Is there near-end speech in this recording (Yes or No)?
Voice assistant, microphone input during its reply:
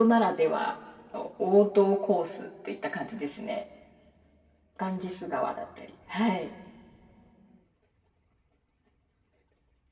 Yes